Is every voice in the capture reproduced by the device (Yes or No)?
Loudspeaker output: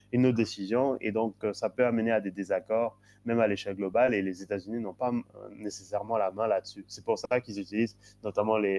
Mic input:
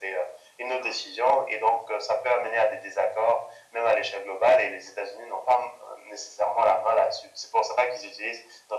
Yes